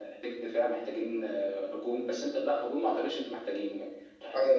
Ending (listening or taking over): taking over